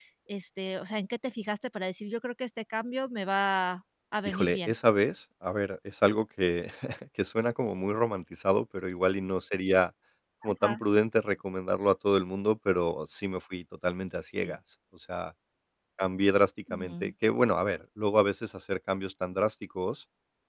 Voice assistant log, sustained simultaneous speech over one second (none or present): none